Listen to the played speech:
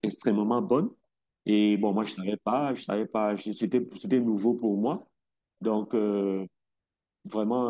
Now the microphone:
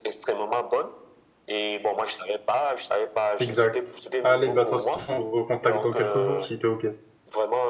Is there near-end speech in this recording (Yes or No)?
Yes